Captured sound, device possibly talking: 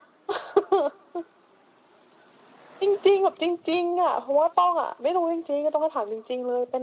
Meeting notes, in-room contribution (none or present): none